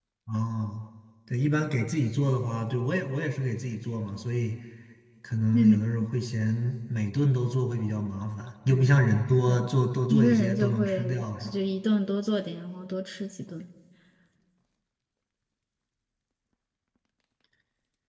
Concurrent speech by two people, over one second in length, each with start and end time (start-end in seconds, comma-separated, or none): 10.1-11.6